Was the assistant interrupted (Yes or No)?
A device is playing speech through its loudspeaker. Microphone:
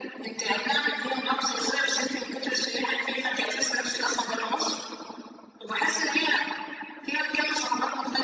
No